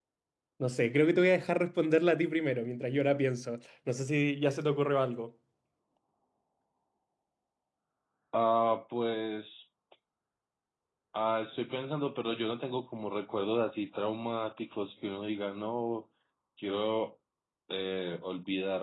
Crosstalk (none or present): none